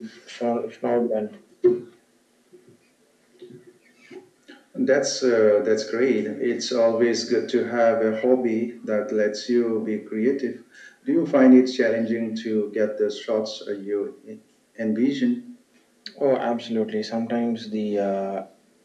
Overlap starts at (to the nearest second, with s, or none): none